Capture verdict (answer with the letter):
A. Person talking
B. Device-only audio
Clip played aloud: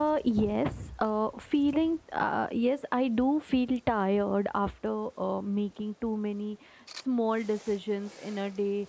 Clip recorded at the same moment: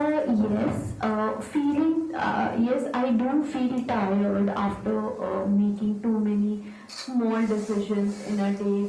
B